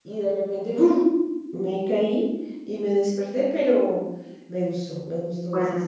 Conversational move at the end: taking over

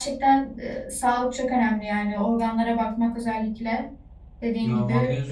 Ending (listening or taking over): taking over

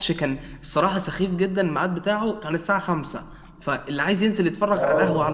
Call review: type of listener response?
listening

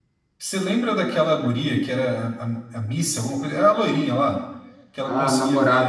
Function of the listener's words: taking over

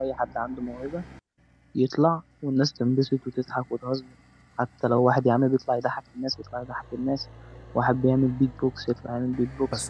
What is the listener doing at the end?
taking over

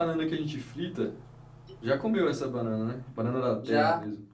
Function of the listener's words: taking over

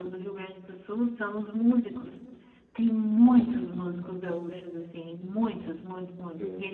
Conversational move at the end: listening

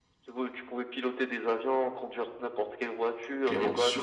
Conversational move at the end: taking over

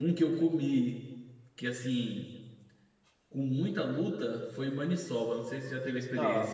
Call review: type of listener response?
taking over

